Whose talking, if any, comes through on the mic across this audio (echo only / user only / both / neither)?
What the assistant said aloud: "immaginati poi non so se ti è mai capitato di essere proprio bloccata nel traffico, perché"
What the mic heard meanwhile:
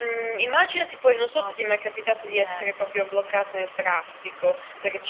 both